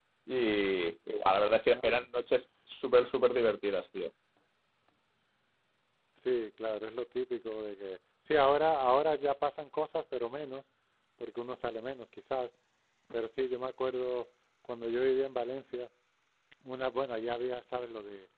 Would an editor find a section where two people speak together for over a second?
No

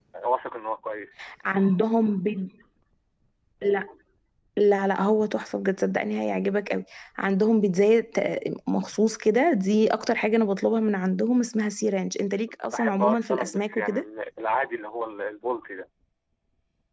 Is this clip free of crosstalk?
No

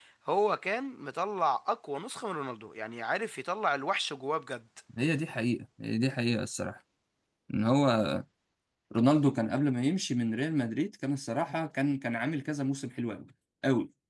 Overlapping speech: No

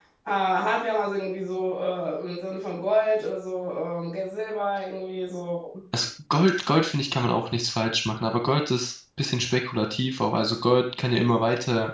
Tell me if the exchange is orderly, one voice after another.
Yes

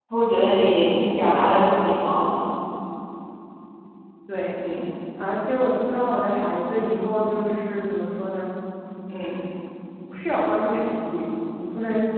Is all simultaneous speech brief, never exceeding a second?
Yes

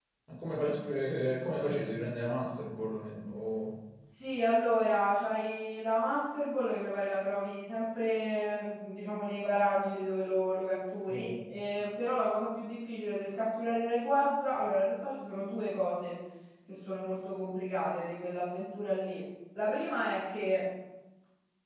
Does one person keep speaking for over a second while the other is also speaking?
No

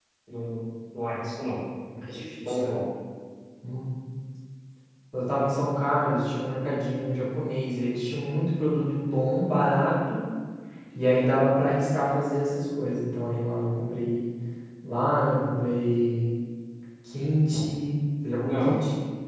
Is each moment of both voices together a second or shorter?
Yes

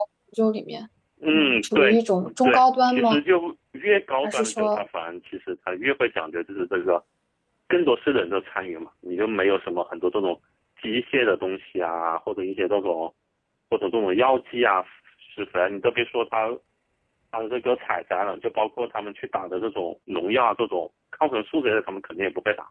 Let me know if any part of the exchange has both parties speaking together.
Yes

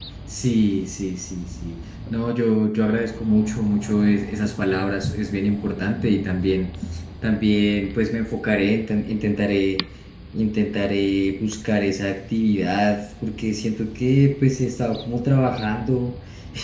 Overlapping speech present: No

